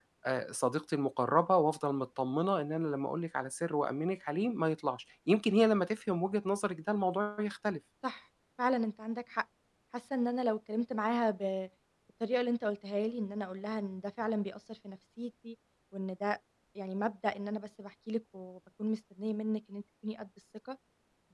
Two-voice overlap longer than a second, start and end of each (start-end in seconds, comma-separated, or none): none